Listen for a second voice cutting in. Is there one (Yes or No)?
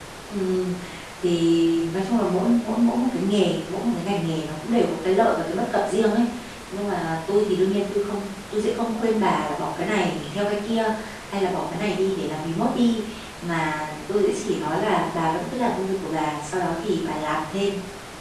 No